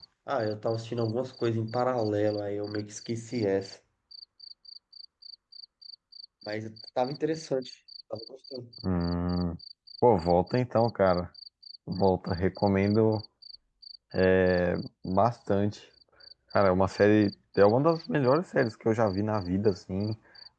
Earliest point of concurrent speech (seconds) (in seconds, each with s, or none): none